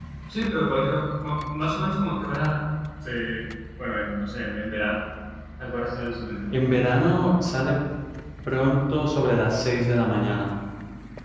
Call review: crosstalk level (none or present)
none